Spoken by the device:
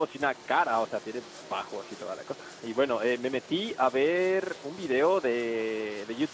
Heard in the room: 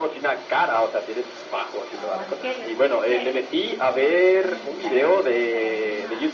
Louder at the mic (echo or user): echo